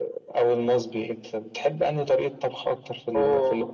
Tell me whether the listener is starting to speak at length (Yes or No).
No